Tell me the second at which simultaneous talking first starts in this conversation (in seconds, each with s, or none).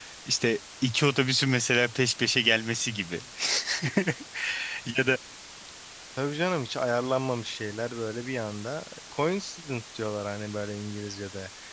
none